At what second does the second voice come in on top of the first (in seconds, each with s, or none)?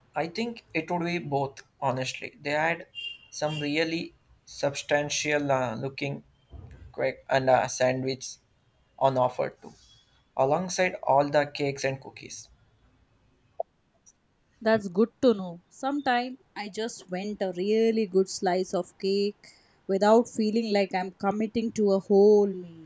none